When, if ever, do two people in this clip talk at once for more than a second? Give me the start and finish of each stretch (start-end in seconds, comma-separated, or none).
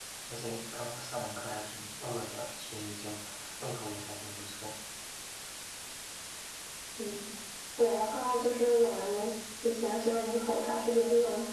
none